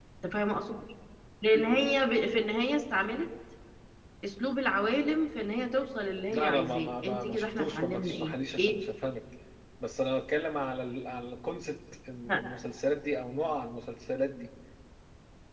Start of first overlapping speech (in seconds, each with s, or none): 6.3 s